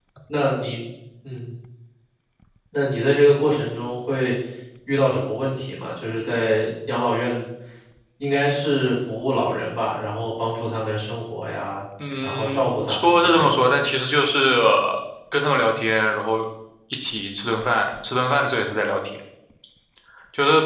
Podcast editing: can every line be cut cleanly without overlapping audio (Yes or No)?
No